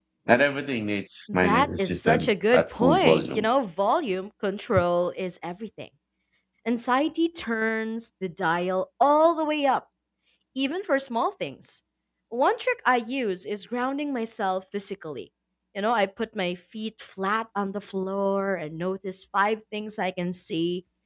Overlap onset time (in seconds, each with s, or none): 1.3 s